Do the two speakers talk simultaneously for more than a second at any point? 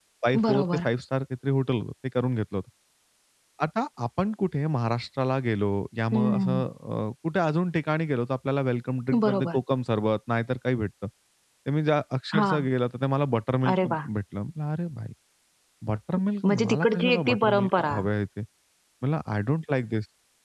Yes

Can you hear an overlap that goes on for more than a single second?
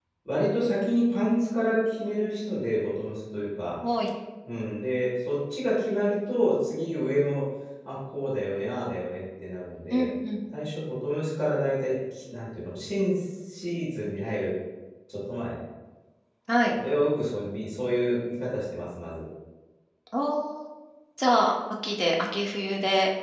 No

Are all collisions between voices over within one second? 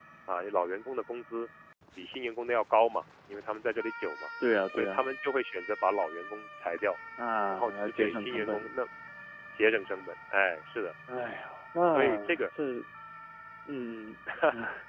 No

